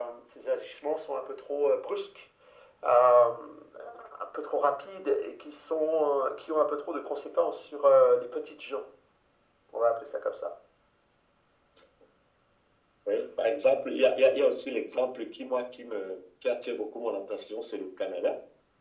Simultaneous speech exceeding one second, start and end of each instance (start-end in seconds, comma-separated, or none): none